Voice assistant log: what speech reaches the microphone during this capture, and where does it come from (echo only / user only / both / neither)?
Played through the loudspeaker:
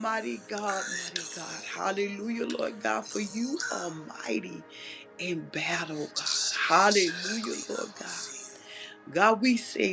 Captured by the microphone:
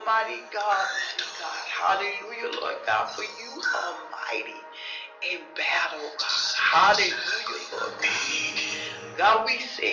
both